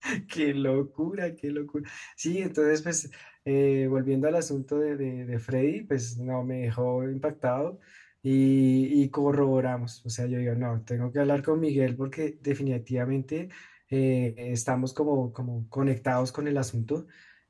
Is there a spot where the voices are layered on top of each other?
No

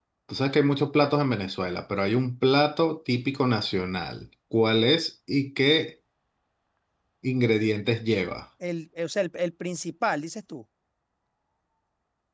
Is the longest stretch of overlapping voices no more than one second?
Yes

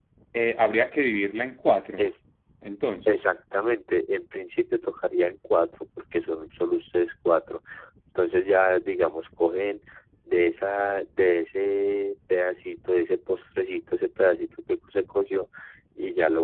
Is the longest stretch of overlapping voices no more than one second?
Yes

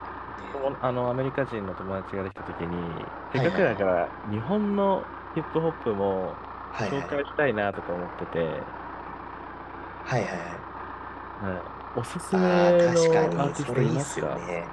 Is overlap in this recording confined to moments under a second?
No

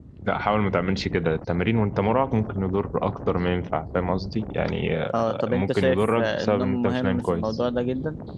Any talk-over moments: Yes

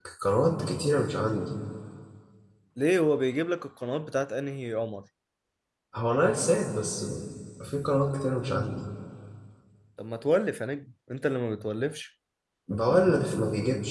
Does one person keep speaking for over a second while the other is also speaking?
No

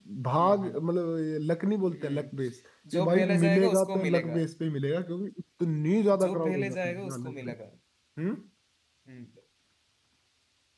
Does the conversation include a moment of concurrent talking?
Yes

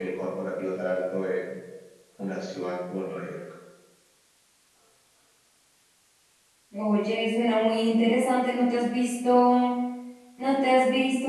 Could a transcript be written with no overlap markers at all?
Yes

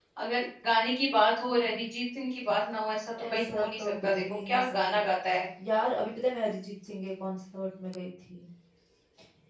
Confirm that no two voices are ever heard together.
No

